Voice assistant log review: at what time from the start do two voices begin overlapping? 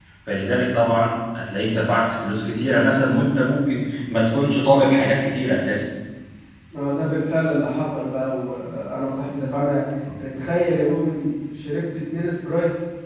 none

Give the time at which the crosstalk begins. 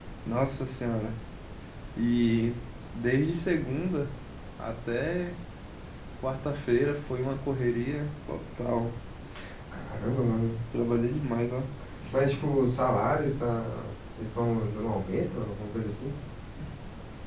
none

